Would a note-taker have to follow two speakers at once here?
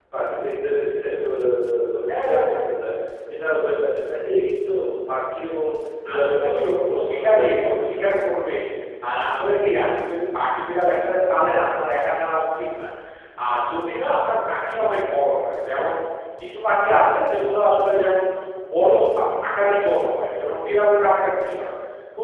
Yes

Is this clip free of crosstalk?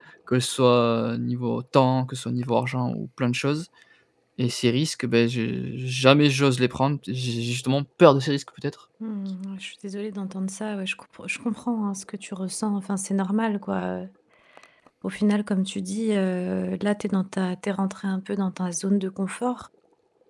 Yes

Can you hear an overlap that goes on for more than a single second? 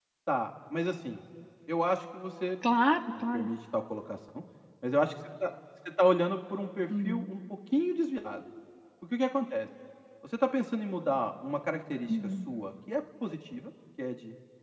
No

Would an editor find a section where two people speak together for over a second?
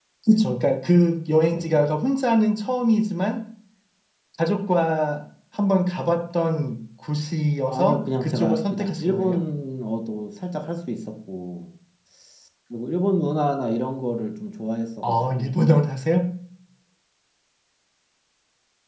Yes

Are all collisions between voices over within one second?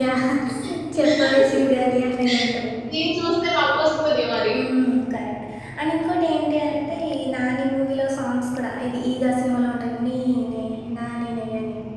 Yes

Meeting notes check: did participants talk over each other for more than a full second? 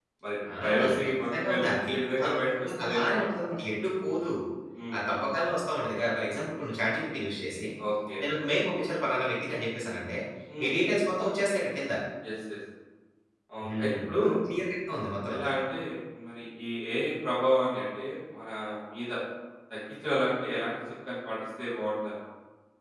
Yes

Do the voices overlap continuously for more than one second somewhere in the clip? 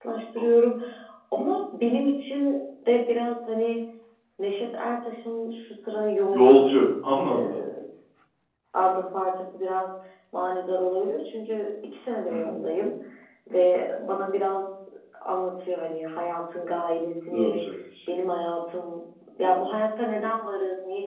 No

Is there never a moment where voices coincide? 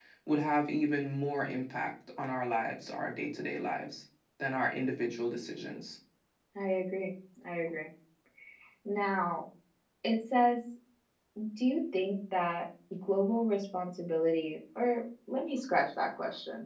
Yes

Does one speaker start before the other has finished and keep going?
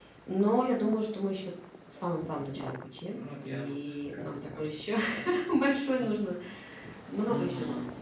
Yes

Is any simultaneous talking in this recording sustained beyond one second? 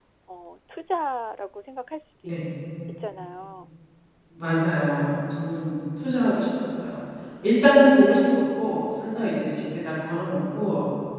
No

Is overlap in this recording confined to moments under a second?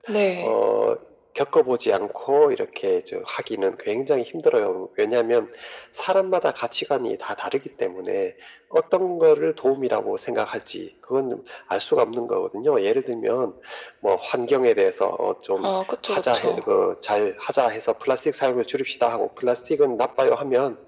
Yes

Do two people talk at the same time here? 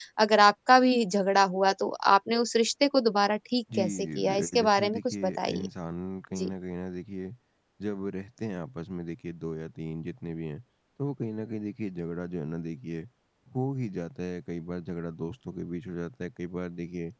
Yes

